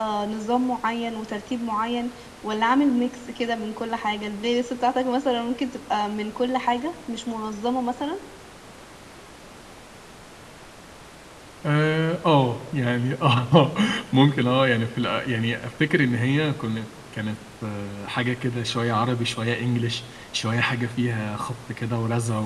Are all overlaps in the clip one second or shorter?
Yes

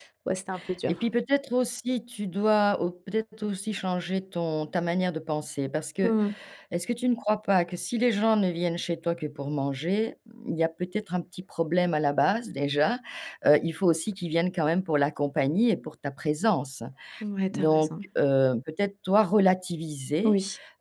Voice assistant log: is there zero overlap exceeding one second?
Yes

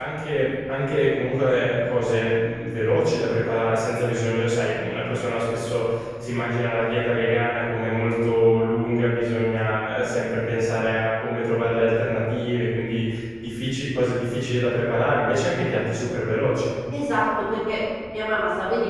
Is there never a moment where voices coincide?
Yes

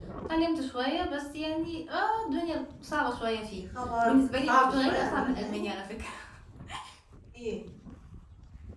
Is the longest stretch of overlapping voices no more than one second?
No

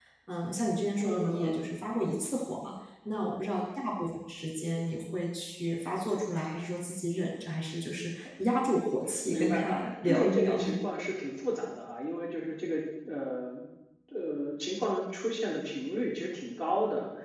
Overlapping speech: Yes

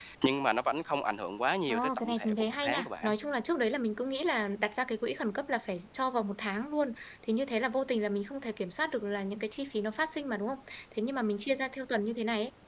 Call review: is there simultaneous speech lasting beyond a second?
Yes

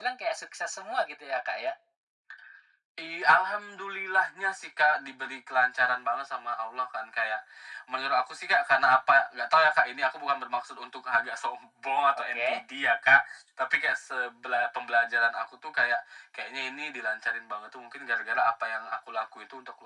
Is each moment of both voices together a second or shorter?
Yes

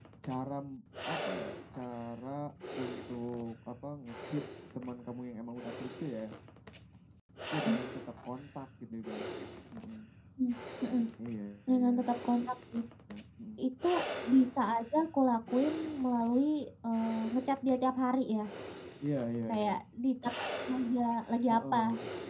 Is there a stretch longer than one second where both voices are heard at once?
No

